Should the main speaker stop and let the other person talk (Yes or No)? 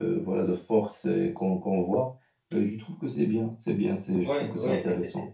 Yes